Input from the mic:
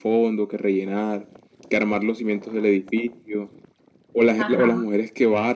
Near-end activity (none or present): present